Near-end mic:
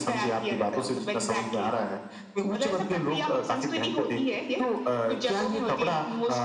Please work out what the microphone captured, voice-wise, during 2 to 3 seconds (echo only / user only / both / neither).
echo only